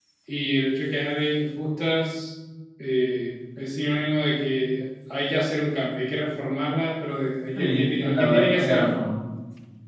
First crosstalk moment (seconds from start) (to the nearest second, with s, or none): 8 s